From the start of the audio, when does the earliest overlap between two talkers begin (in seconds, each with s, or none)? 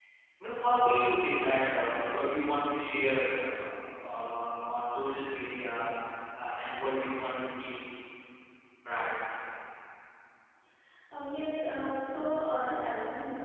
none